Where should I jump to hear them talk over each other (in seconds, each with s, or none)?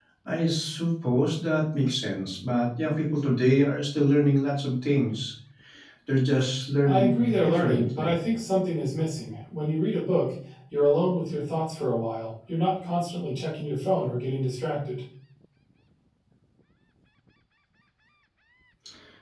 6.8 s